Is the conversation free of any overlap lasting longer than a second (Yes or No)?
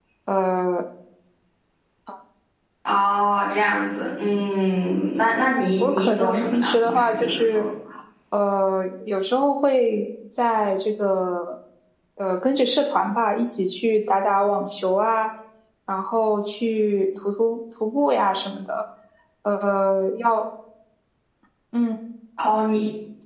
No